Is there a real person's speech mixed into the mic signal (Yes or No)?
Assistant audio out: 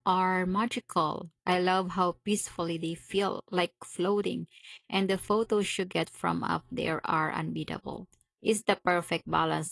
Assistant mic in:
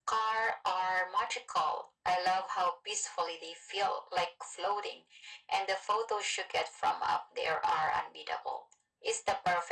No